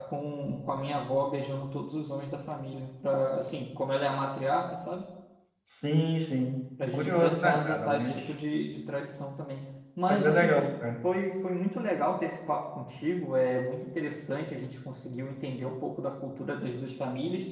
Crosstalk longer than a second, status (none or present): present